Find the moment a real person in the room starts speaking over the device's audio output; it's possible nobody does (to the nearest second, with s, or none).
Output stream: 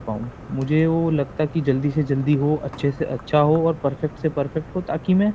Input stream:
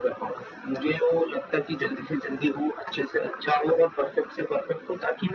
none